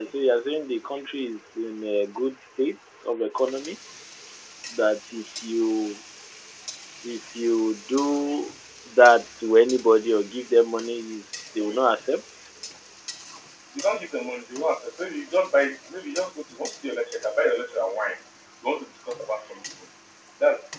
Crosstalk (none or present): none